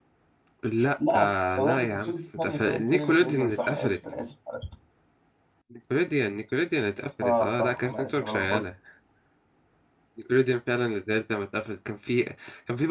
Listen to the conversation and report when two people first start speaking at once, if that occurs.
1.1 s

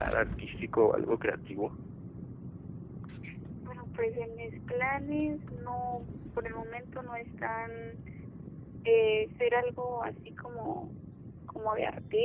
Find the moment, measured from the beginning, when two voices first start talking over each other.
none

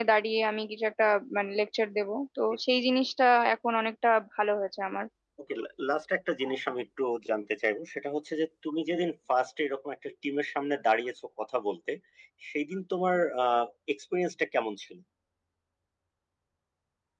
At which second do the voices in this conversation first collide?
none

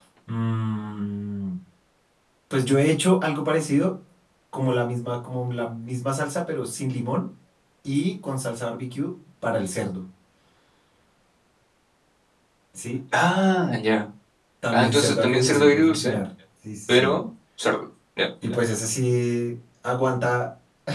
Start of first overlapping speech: 14.7 s

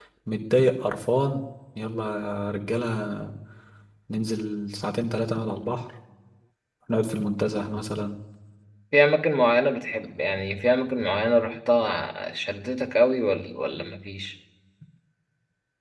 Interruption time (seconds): none

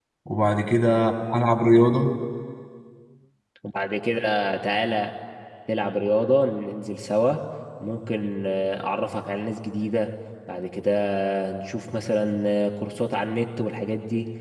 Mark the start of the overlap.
none

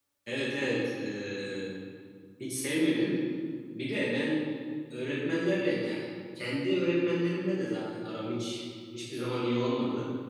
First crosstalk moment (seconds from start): none

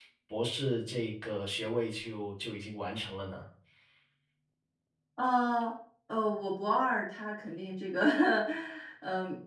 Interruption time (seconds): none

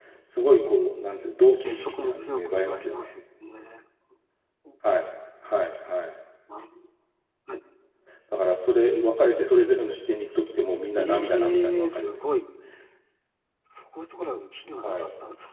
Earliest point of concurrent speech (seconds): 1.6 s

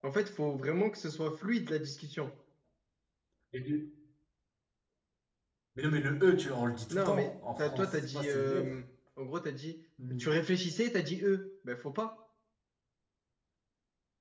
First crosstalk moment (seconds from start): 6.9 s

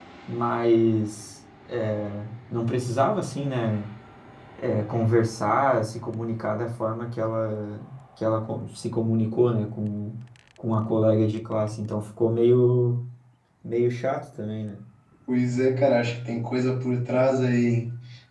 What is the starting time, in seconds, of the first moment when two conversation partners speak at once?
none

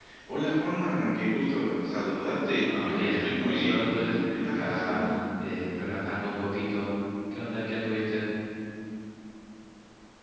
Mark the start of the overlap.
2.6 s

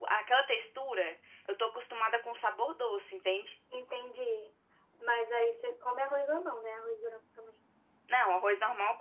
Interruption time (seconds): none

